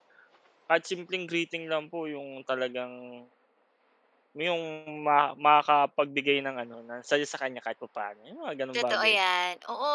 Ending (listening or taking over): taking over